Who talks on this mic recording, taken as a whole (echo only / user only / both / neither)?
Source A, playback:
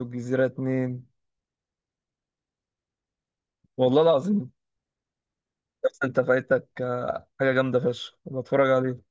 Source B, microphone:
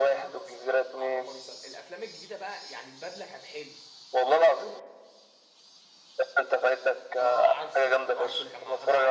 both